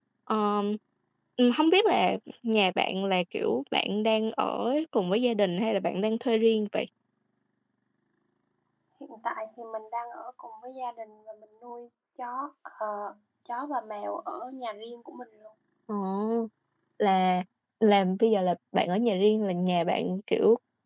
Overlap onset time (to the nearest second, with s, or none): none